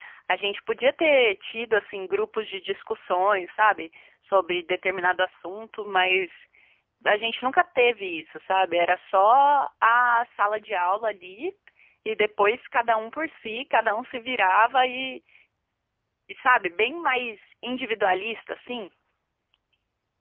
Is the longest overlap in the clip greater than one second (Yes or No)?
No